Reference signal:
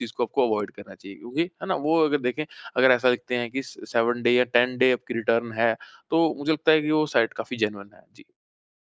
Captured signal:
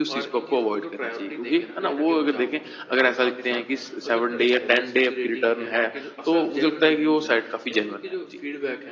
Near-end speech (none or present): present